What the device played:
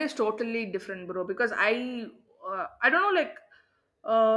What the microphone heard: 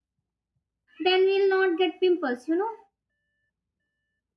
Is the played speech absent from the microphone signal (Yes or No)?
Yes